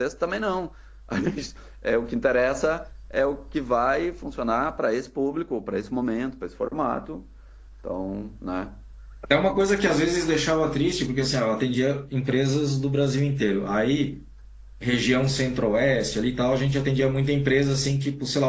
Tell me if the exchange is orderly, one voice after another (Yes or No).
Yes